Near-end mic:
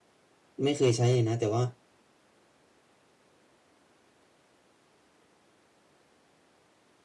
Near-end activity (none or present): present